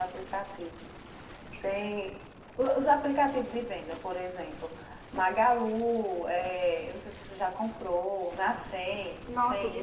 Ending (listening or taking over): taking over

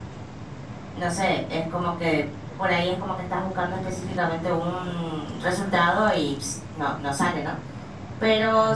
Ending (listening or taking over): taking over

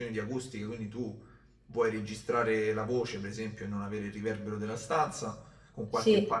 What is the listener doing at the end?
listening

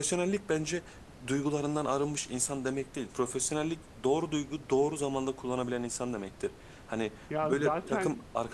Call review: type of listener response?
listening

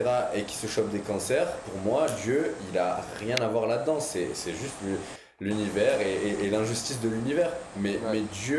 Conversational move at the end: listening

